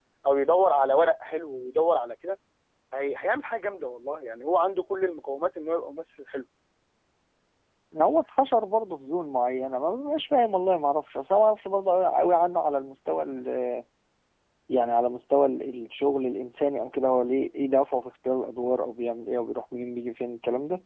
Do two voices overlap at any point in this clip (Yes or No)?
No